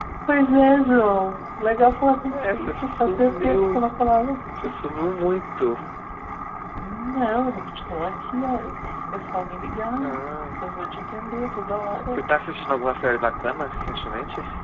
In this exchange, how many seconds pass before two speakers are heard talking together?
2 s

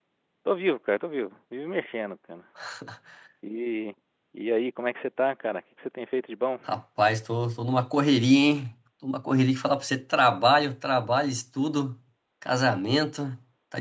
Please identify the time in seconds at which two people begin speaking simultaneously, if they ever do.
none

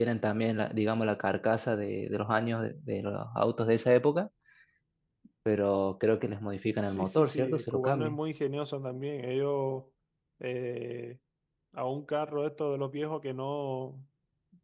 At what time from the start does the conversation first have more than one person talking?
7 s

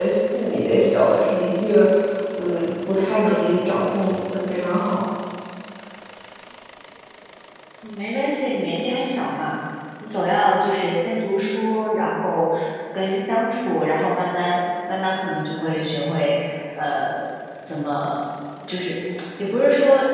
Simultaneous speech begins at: none

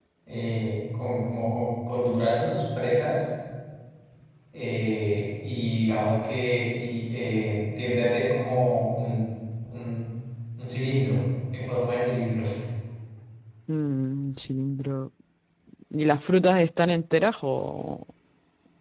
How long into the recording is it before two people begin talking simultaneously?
none

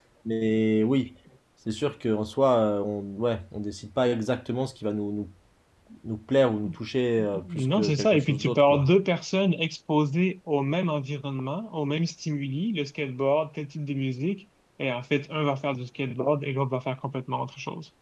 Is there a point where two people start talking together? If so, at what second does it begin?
7 s

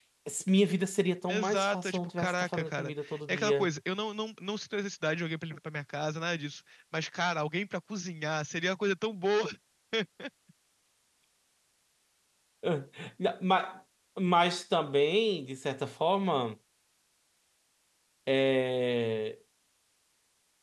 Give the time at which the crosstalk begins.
1 s

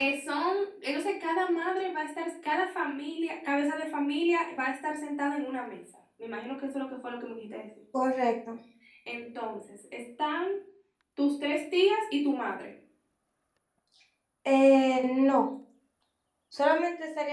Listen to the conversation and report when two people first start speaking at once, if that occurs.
none

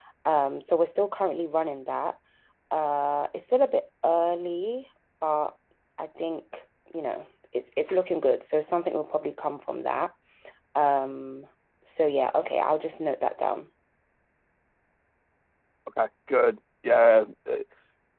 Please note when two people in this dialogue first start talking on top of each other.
none

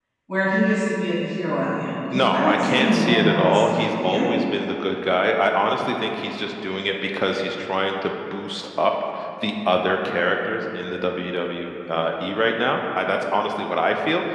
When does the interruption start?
2 s

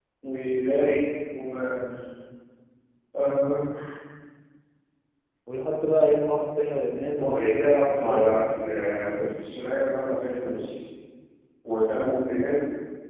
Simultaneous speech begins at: 7 s

